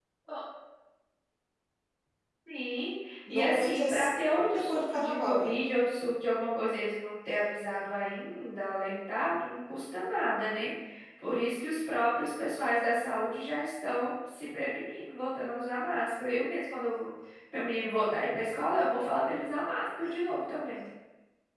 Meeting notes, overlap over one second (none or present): present